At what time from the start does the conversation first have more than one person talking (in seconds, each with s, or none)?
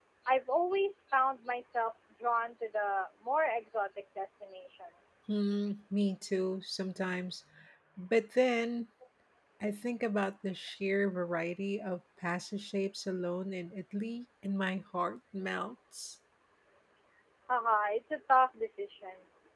none